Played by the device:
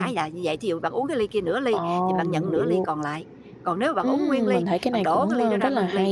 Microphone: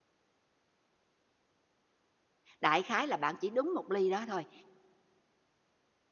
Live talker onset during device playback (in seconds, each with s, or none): 2.6 s